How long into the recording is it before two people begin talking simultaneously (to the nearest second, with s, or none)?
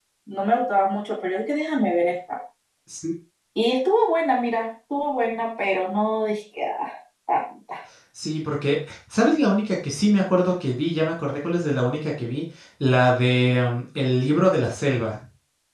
none